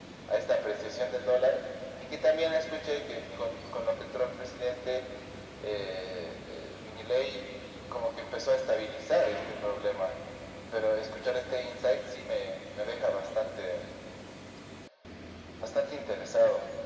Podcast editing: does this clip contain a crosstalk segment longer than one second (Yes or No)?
No